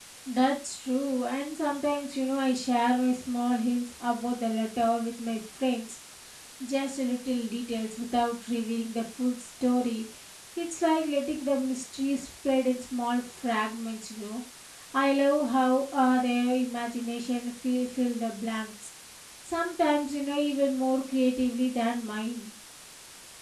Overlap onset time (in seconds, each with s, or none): none